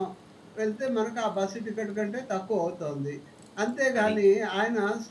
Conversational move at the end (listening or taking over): listening